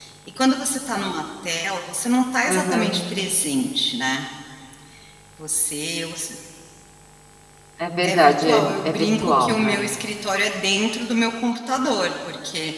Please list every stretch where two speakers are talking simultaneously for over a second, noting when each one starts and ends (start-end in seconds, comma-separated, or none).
8.0-9.8